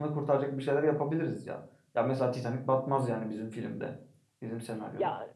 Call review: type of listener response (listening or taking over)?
taking over